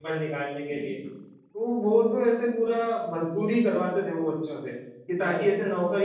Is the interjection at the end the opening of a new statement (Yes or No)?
No